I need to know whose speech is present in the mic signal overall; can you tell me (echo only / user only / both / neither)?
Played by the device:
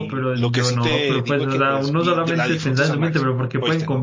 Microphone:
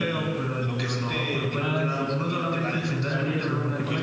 both